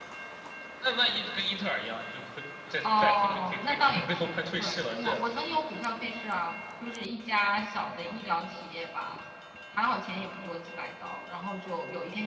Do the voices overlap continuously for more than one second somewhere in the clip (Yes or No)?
Yes